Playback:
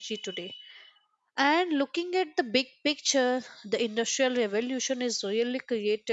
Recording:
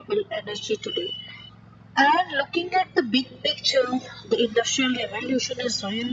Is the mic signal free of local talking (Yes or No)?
Yes